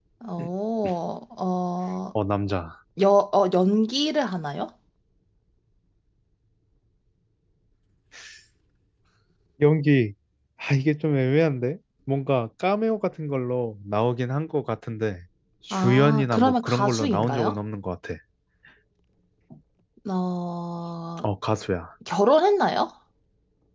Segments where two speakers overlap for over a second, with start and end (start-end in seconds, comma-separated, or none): 15.7-17.6